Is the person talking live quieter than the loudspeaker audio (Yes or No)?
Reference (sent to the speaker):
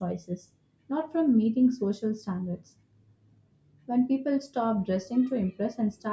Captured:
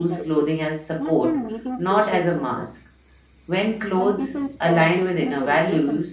No